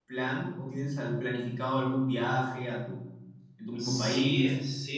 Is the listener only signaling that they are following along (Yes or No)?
No